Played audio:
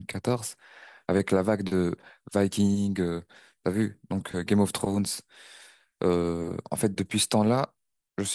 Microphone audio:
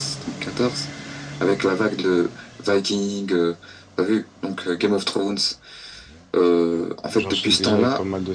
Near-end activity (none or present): present